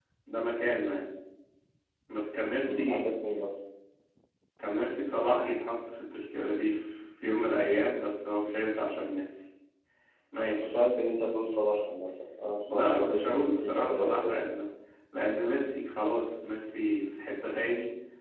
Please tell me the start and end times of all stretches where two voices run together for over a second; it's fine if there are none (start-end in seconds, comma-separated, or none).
12.7-14.3